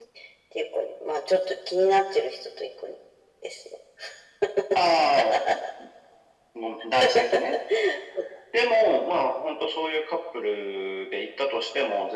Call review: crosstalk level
none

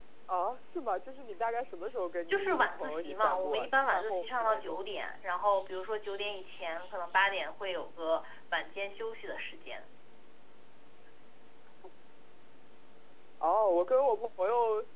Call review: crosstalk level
present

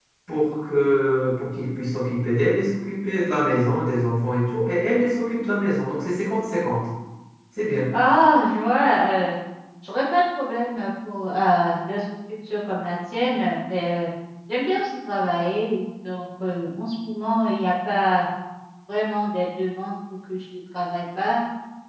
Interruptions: none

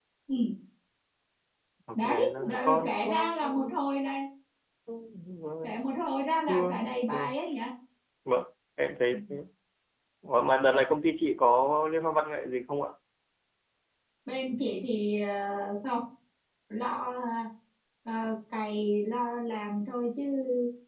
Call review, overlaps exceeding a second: present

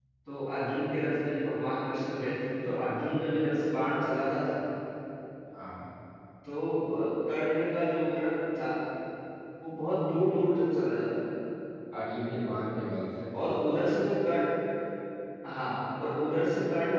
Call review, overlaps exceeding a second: none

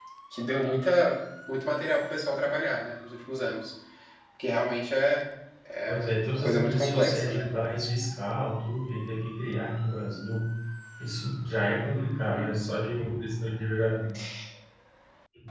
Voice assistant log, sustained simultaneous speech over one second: present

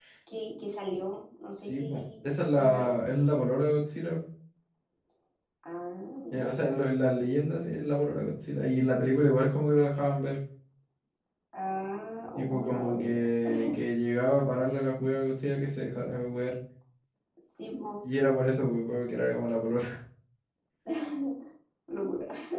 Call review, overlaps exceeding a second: present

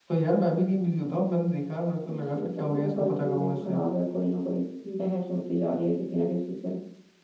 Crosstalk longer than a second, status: present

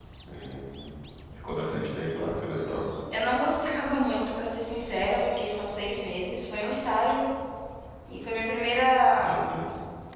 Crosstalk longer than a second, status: none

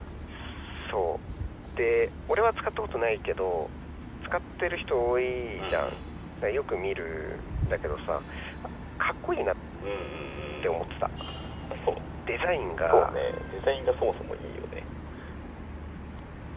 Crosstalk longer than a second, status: none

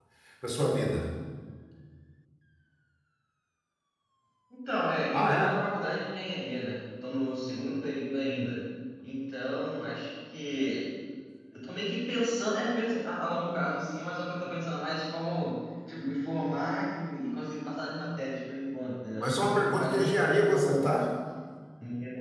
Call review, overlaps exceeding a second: present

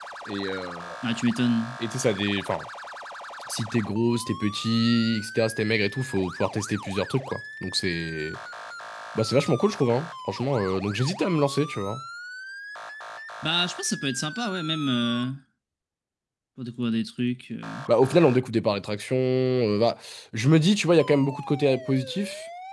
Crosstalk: none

